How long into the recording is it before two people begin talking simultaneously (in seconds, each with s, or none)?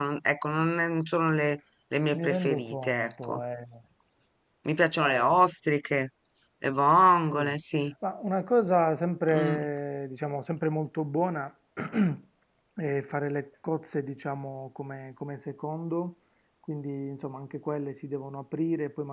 2.2 s